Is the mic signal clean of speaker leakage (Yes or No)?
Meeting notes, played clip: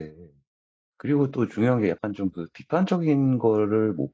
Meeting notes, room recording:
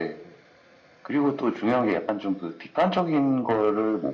No